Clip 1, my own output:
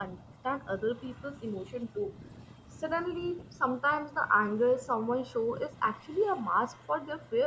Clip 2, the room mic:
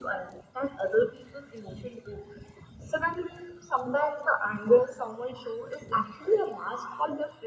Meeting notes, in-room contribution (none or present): none